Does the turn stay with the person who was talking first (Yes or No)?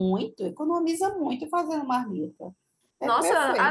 No